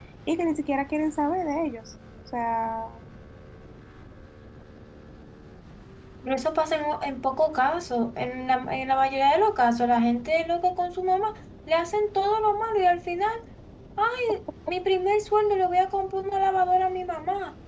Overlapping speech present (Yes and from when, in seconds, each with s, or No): No